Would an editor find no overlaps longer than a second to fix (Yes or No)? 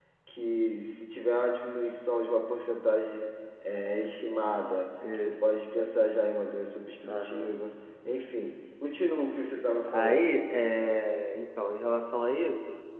Yes